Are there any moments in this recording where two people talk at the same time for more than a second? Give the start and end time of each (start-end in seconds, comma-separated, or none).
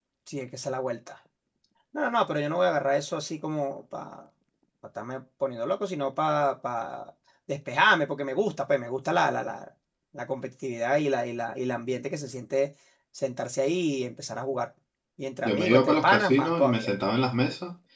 15.4-16.9